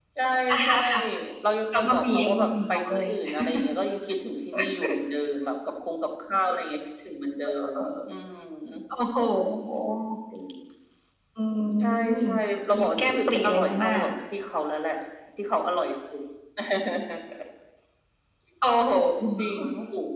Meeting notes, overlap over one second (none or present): present